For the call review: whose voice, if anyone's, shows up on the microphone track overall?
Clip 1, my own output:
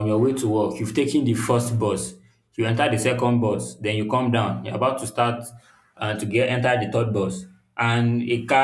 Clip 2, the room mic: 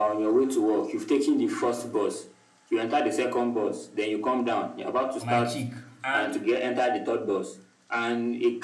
both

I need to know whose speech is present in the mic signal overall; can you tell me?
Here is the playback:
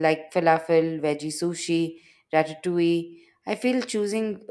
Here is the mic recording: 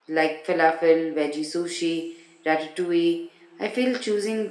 echo only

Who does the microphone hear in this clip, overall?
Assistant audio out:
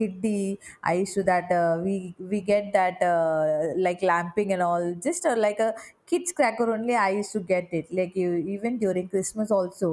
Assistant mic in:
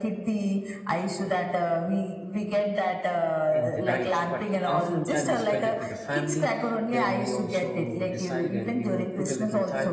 both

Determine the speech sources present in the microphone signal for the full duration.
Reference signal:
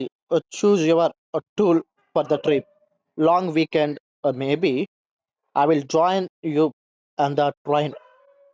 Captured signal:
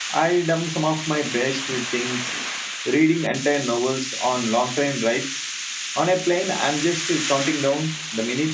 user only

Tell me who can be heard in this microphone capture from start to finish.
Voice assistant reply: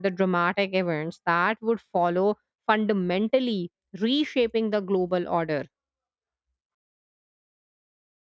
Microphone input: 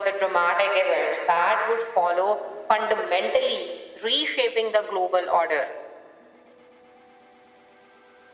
echo only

